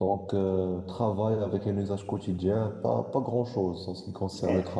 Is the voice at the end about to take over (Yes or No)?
No